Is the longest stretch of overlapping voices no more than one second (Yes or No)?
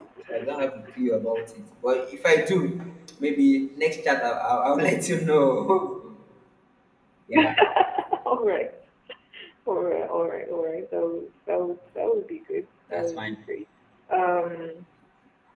Yes